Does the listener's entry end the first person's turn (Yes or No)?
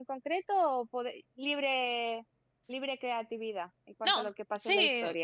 Yes